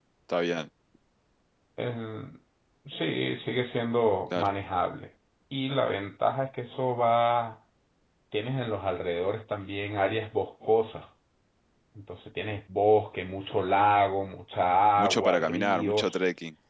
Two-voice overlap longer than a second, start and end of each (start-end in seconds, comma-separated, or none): 15.0-16.2